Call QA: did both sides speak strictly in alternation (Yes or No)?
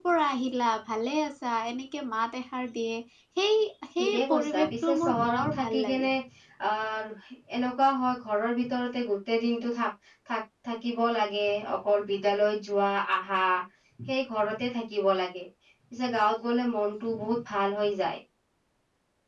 No